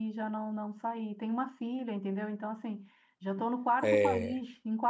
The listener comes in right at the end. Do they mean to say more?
No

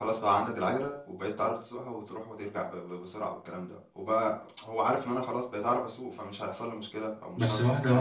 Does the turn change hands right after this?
Yes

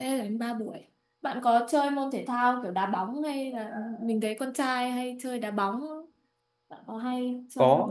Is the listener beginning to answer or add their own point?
Yes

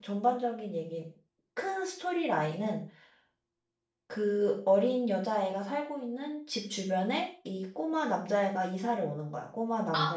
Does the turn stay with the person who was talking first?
No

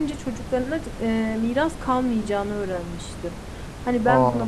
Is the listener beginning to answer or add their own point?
No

